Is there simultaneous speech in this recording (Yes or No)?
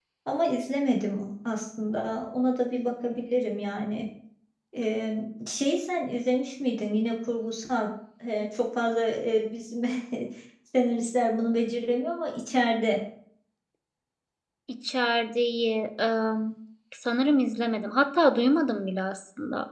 No